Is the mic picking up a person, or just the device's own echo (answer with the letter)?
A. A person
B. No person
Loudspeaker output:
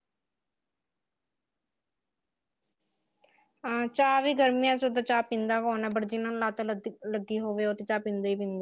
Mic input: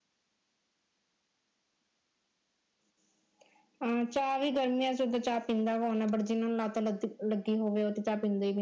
B